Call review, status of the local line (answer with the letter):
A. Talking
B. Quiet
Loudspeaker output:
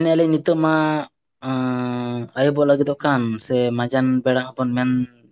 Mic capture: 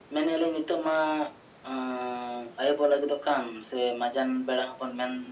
B